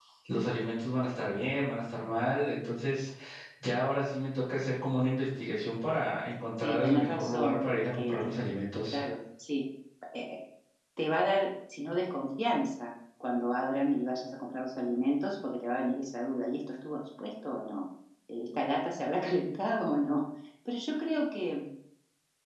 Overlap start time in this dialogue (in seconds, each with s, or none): 6.6 s